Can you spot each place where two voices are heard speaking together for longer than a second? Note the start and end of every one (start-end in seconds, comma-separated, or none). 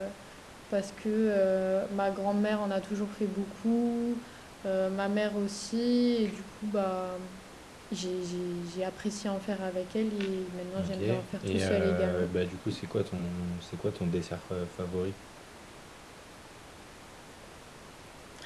10.8-12.3